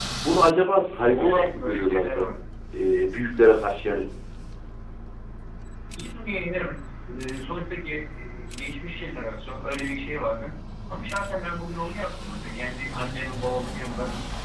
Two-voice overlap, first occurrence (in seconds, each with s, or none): 1.1 s